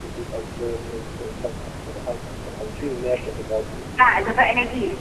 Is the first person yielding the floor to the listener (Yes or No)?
Yes